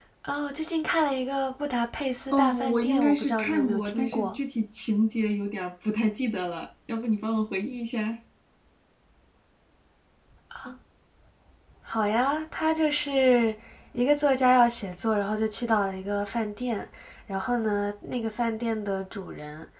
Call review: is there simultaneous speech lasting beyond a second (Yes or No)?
Yes